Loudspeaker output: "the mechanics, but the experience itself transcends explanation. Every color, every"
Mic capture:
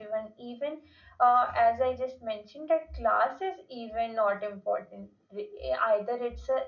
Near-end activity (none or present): present